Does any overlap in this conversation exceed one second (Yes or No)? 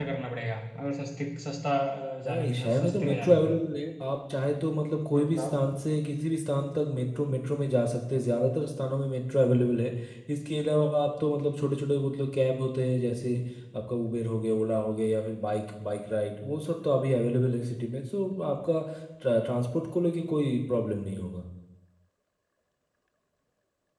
Yes